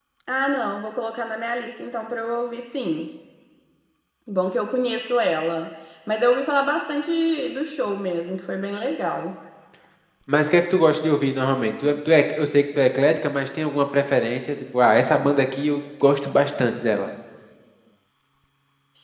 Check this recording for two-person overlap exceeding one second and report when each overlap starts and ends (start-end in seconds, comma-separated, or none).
none